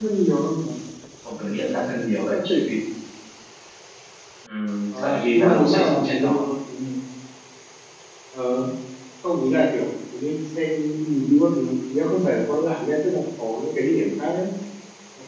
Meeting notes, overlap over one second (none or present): present